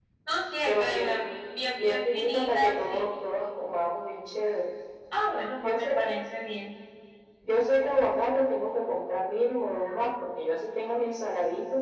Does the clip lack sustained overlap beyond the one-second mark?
No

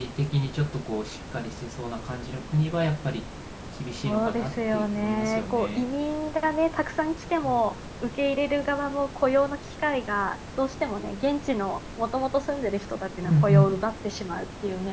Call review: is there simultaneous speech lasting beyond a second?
Yes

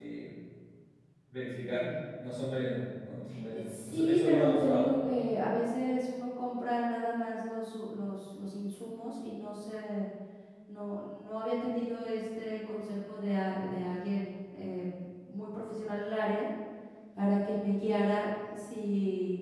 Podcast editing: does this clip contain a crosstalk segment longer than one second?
Yes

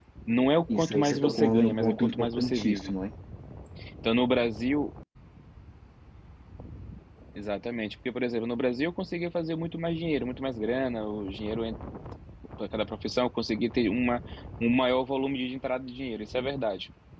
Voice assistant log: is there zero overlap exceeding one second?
No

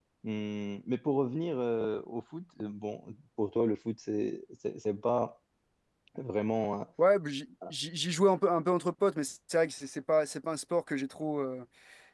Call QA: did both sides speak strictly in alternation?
Yes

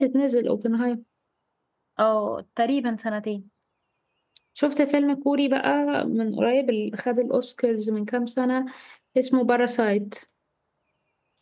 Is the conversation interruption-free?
Yes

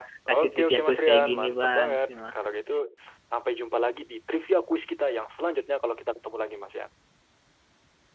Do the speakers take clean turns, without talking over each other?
No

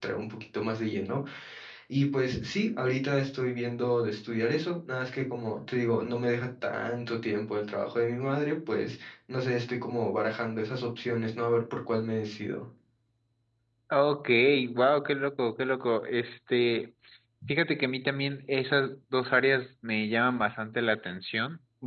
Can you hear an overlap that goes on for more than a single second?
No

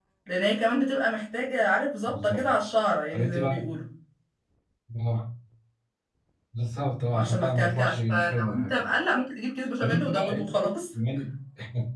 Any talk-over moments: Yes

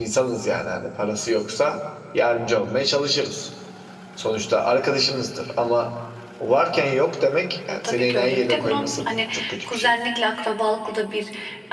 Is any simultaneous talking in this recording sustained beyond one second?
Yes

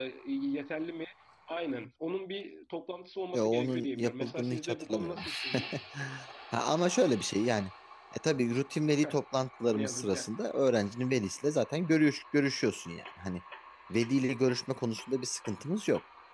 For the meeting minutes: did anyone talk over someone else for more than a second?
Yes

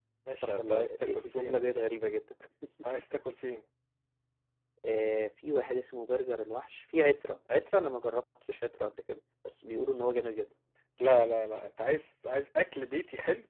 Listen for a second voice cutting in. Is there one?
Yes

